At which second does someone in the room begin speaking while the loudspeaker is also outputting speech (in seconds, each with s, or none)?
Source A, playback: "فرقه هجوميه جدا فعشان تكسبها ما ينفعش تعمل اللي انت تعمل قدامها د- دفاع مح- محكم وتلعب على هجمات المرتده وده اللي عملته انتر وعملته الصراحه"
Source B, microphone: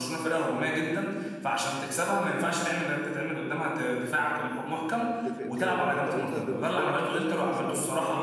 5.0 s